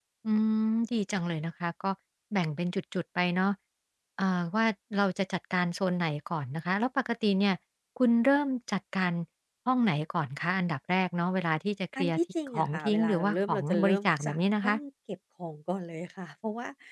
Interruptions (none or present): present